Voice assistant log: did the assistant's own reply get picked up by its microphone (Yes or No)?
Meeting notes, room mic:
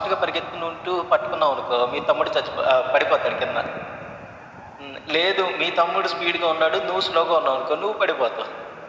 Yes